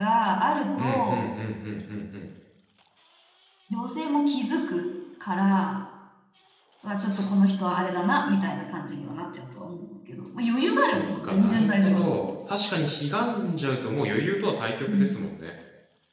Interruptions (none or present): present